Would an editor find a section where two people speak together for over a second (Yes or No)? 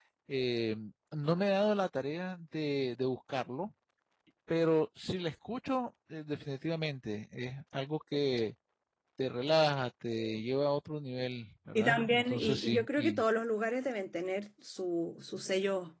Yes